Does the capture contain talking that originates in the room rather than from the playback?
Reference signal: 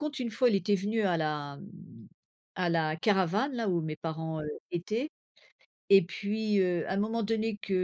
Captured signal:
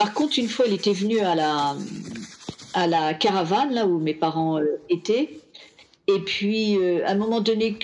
No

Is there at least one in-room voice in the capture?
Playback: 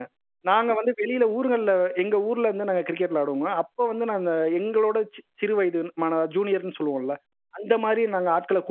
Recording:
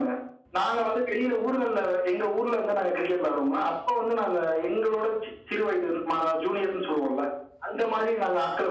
No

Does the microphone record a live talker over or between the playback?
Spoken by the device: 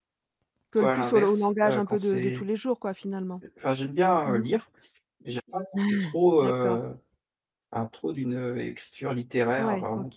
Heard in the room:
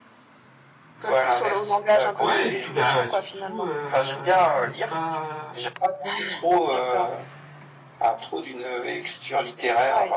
Yes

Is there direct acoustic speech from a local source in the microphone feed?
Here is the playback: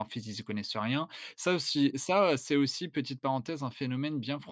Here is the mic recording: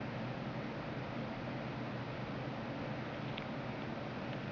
No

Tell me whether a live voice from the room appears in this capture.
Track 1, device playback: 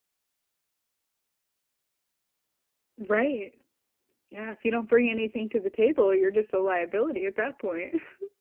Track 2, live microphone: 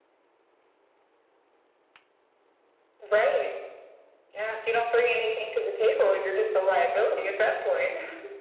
No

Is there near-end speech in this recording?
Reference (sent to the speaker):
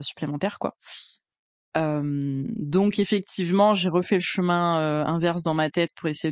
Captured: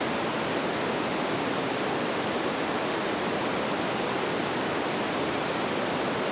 No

